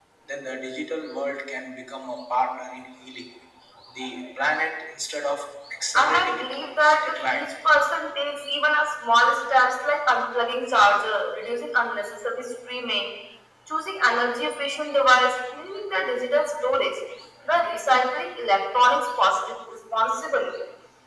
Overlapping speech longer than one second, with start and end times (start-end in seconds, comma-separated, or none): 6.0-7.5